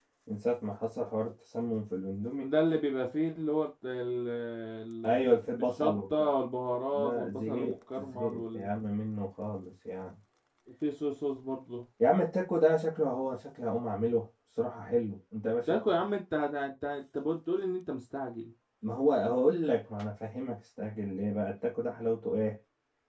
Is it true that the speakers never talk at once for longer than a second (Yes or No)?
No